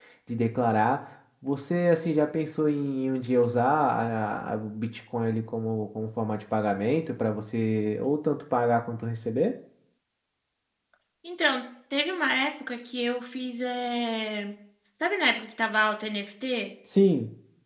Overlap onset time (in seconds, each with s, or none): none